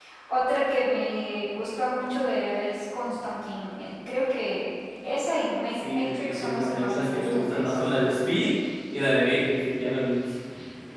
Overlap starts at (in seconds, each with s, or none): 5.7 s